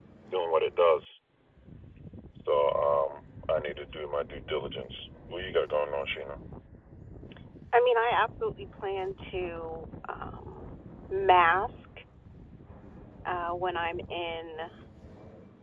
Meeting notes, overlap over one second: none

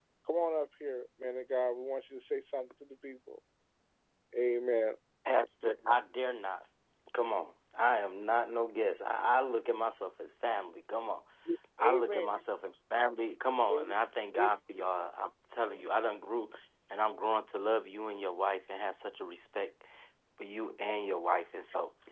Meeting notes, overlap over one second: none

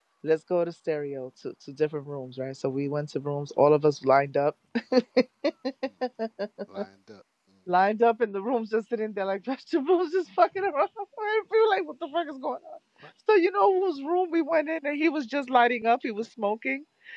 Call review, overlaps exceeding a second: none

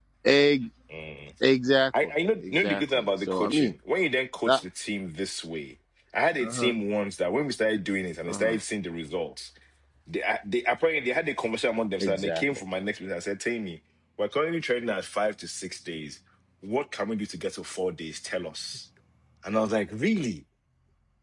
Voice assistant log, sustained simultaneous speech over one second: present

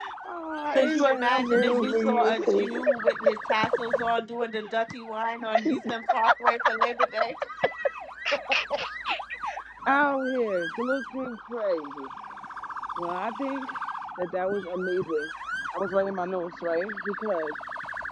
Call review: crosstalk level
present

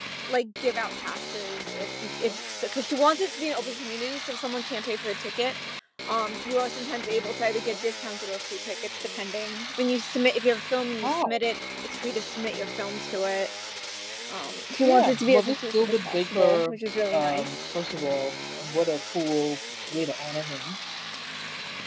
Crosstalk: present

